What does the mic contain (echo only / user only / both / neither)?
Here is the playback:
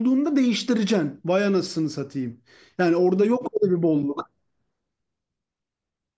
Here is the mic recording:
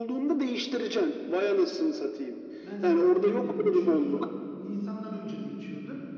both